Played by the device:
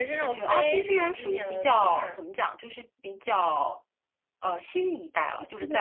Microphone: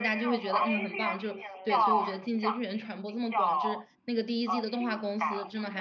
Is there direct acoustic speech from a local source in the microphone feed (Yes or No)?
Yes